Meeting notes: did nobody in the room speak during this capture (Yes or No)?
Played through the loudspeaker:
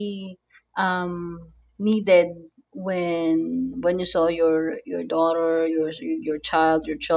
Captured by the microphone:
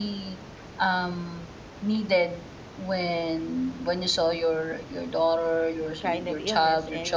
No